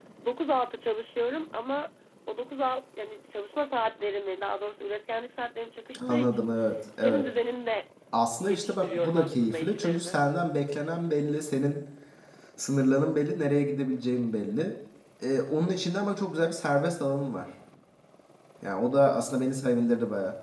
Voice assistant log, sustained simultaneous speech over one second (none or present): present